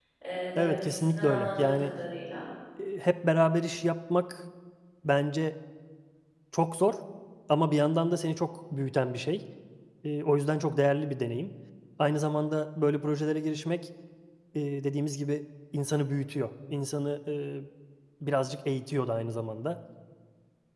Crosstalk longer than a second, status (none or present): present